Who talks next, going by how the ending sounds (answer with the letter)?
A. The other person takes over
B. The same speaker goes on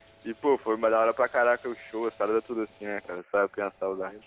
A